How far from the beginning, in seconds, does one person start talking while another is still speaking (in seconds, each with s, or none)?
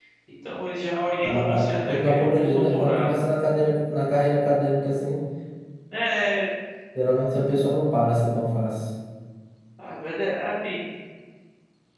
1.2 s